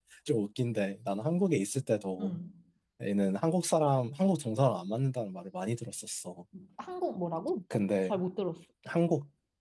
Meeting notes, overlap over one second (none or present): none